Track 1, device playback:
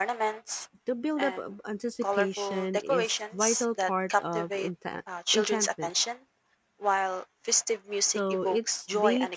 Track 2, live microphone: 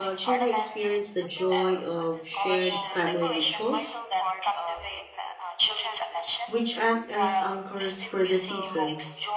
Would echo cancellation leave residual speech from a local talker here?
Yes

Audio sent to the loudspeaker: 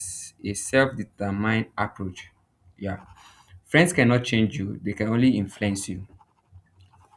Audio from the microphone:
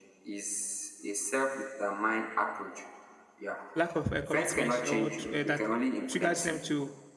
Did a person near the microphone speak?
Yes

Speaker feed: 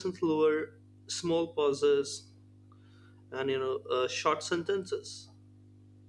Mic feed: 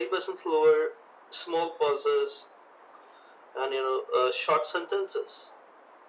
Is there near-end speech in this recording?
No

